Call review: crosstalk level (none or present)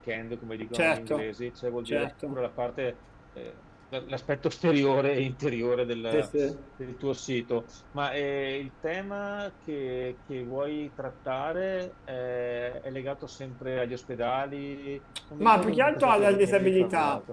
present